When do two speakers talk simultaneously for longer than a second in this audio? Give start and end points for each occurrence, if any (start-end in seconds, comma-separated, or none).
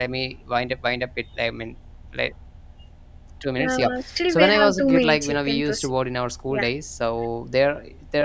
4.3-5.9